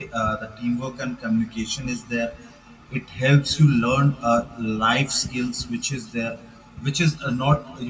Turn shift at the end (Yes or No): No